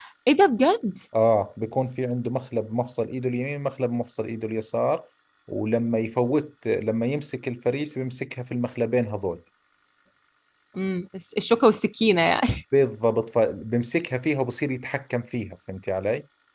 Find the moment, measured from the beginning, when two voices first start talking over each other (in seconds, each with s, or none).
none